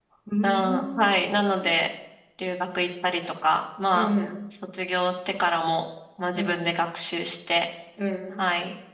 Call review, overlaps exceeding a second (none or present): present